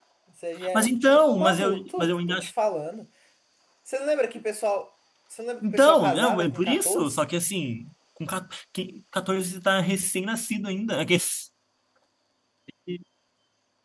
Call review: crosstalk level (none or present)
present